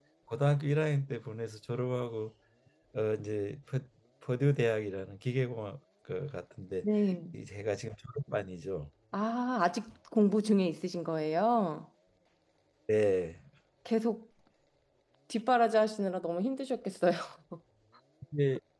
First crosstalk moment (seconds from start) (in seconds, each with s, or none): none